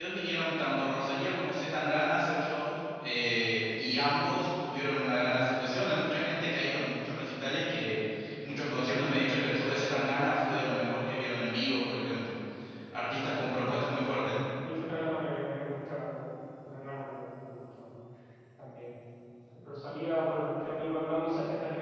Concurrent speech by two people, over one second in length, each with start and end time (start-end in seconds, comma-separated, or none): none